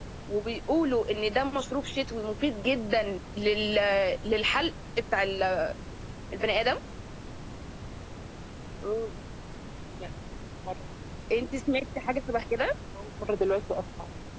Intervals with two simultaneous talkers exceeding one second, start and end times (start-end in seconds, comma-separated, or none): none